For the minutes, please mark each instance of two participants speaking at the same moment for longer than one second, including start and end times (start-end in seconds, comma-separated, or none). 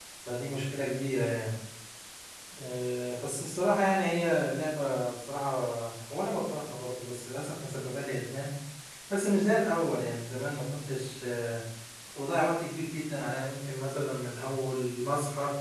none